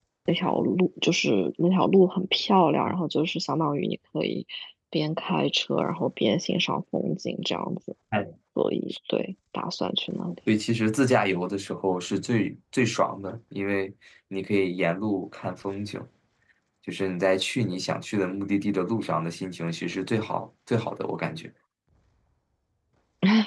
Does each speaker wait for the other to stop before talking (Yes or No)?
Yes